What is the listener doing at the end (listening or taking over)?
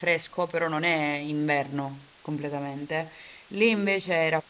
listening